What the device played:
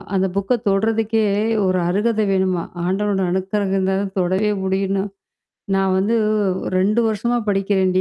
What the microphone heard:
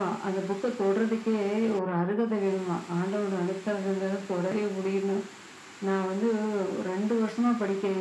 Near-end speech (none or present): none